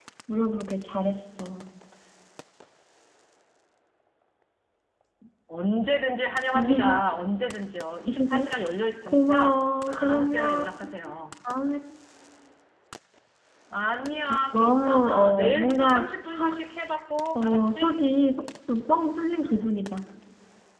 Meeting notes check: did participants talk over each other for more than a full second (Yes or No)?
Yes